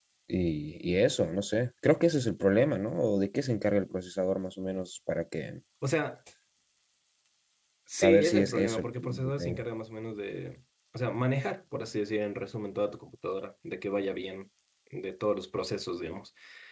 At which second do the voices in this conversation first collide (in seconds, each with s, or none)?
8.0 s